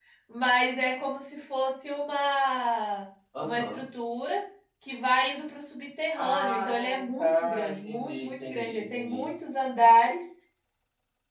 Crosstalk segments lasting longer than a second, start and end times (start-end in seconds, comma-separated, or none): 6.2-9.3